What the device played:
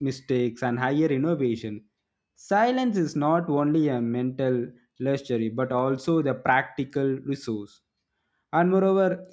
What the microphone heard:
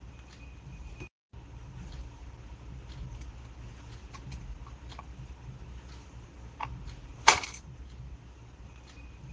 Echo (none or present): none